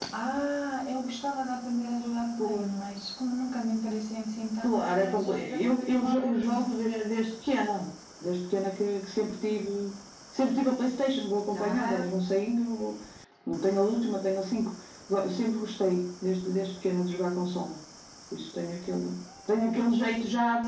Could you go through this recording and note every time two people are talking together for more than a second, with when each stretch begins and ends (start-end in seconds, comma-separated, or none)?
4.6-6.7